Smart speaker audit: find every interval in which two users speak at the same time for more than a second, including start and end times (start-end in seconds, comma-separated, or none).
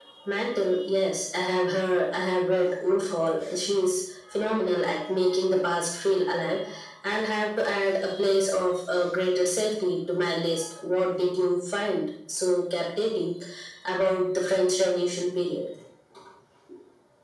none